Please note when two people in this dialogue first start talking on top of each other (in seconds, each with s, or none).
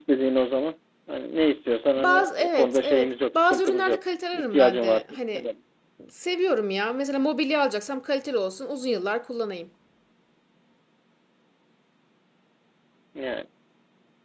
2.0 s